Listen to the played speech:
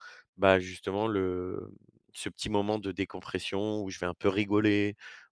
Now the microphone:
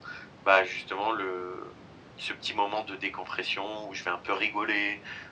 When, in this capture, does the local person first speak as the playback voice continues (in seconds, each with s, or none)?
none